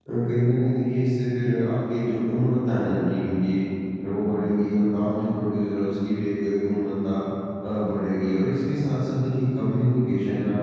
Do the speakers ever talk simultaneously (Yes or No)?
No